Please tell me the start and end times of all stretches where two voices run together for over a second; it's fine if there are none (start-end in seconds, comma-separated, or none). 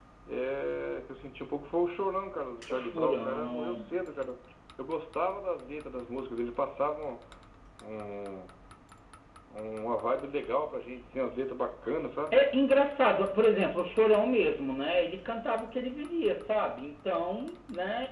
2.7-4.0